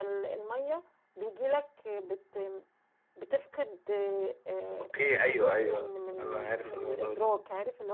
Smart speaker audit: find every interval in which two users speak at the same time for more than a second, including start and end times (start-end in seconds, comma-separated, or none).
4.8-7.3